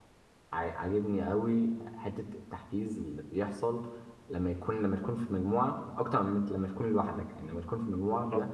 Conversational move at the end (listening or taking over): listening